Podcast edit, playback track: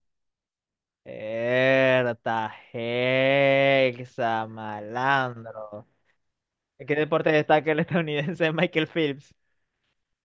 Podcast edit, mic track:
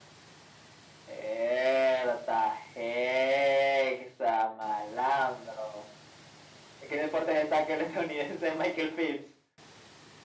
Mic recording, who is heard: echo only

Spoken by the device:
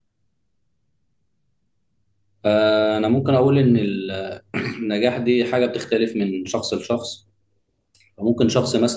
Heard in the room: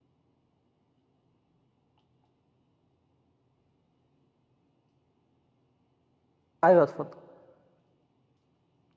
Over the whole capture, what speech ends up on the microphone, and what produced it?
user only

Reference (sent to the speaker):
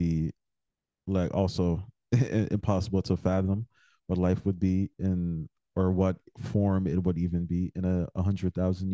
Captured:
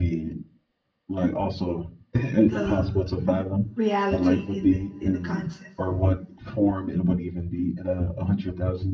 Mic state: both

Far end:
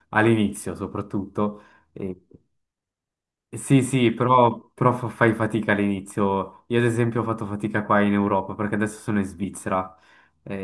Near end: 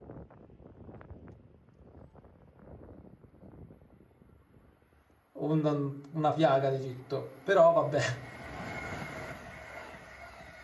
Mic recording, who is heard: user only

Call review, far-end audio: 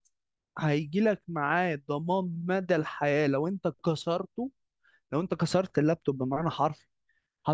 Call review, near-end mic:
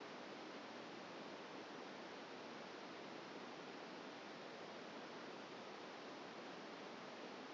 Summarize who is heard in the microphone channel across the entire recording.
neither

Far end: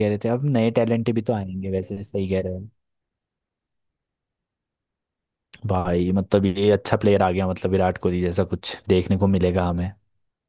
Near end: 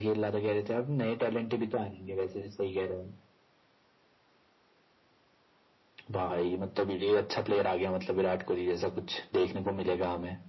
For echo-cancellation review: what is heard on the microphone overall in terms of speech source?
echo only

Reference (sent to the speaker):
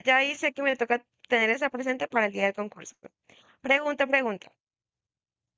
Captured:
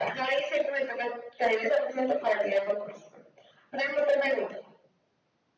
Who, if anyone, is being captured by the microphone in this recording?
echo only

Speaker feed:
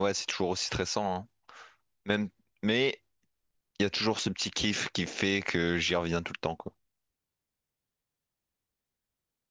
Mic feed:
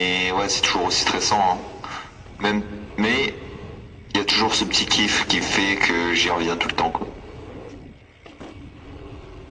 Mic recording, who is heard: echo only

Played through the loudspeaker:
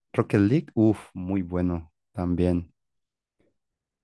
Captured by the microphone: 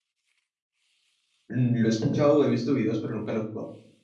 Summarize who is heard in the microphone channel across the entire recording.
user only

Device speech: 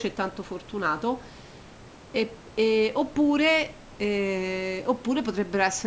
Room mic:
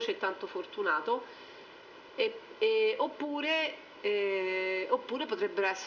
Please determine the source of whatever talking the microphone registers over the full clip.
echo only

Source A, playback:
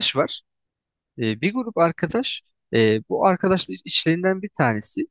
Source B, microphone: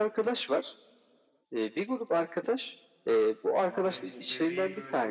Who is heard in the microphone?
both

